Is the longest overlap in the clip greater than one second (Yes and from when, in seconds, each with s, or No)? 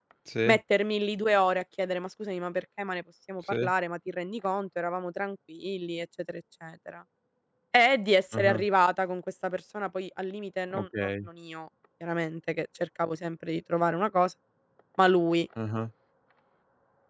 No